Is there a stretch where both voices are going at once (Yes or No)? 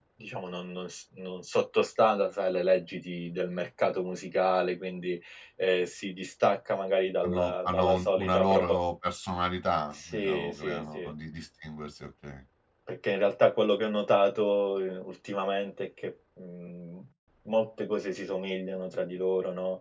Yes